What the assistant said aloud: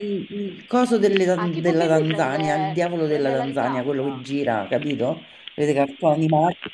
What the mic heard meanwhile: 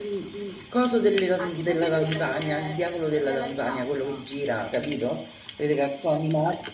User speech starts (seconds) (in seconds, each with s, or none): none